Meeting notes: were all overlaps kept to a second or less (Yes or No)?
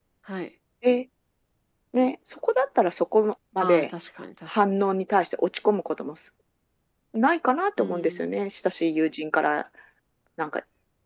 Yes